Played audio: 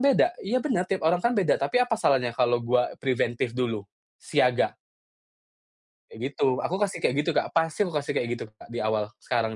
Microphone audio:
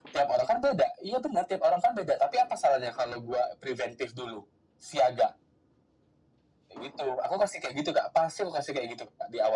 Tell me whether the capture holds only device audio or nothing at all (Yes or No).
Yes